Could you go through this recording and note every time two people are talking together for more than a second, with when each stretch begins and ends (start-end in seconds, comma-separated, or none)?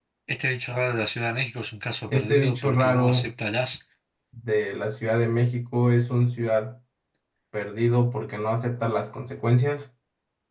2.1-3.3